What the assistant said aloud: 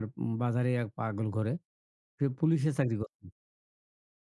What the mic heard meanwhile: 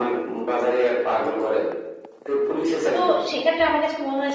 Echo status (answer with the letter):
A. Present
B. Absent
A